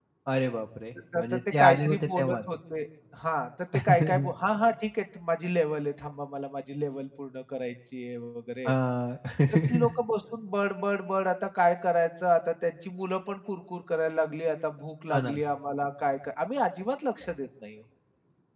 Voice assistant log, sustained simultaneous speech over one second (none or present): present